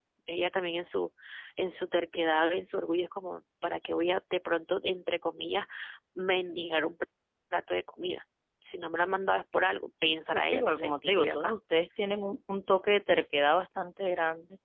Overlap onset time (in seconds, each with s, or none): 10.3 s